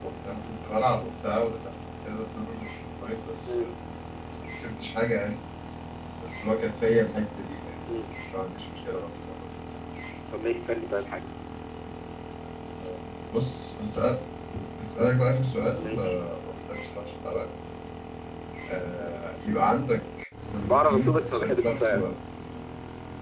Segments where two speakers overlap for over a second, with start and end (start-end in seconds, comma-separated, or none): 20.6-22.1